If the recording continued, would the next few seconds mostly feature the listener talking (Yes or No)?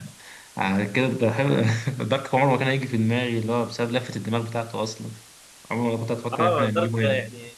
Yes